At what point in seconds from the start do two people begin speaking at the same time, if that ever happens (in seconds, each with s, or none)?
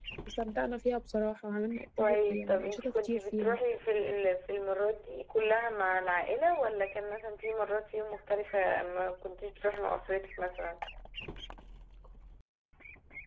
2.0 s